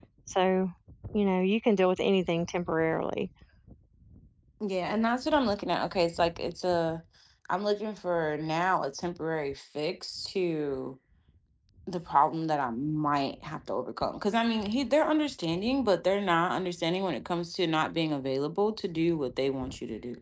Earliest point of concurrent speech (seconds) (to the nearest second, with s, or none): none